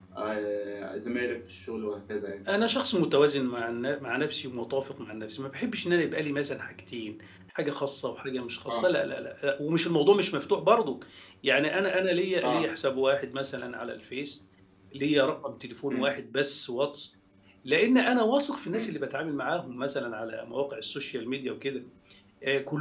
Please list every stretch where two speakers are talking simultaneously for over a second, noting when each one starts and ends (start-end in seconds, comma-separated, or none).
none